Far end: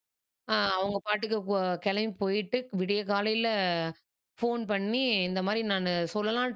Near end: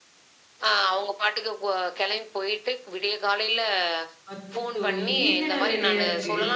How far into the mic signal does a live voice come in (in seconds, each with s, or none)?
4.3 s